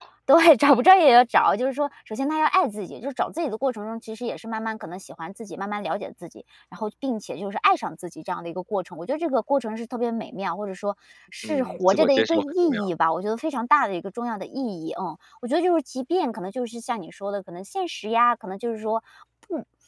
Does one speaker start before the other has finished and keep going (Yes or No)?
Yes